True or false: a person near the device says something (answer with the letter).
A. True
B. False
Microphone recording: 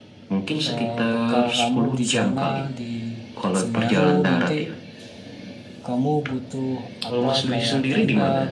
A